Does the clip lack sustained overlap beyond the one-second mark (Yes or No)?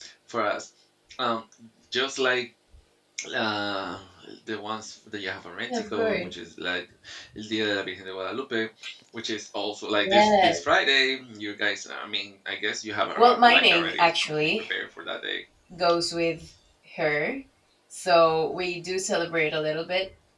No